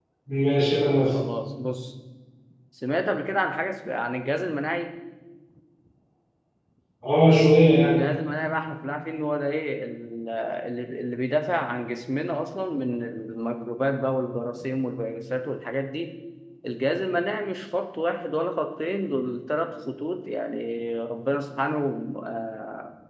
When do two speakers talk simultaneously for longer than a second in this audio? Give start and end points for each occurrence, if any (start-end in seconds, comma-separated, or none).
none